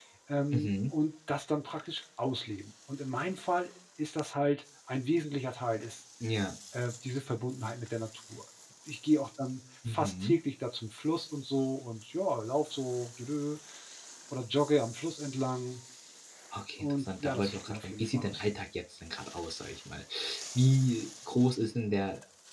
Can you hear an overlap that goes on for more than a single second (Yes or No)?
Yes